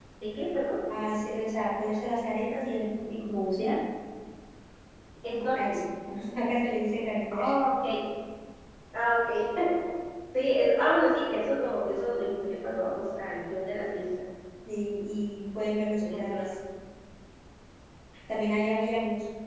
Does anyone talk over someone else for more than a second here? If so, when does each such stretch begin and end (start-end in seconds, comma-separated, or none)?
none